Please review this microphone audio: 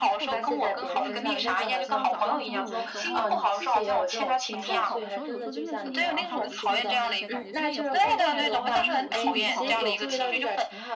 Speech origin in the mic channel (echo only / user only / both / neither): both